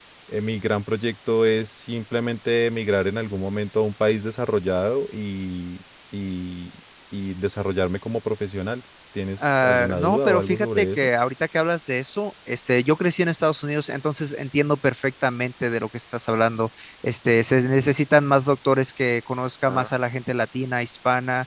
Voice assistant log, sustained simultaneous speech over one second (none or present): present